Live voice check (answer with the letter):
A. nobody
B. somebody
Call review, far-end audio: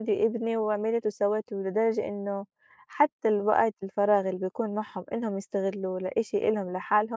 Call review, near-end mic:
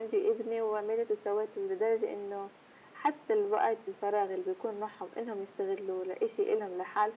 A